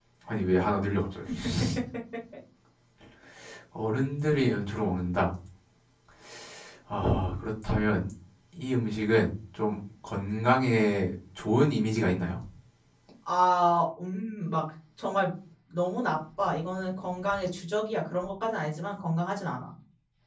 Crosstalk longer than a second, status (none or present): none